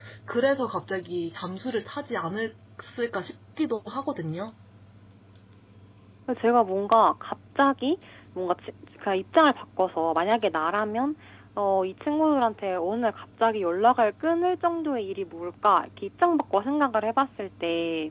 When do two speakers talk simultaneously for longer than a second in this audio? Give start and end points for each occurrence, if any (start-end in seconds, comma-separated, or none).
none